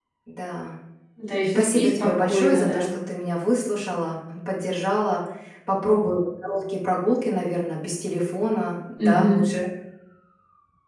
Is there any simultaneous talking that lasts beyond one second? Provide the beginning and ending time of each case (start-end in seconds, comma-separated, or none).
1.6-2.9